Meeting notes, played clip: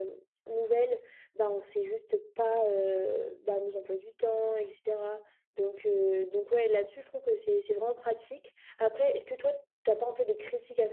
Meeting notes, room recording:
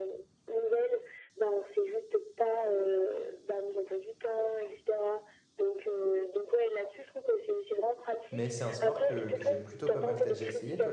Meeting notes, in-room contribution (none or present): present